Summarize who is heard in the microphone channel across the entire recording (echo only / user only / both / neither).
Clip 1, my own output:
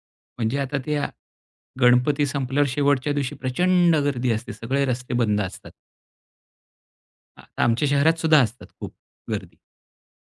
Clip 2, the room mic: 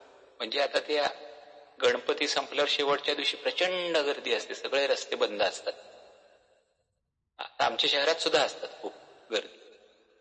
echo only